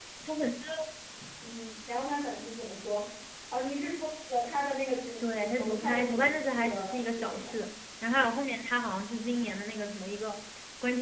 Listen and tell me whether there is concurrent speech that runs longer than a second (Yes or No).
Yes